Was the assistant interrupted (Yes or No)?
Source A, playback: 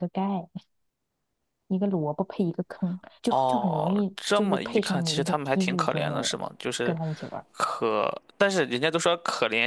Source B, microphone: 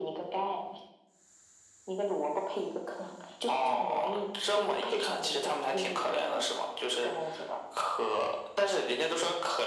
No